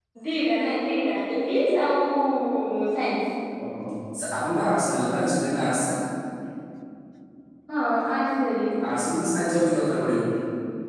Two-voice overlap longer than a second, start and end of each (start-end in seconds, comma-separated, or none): none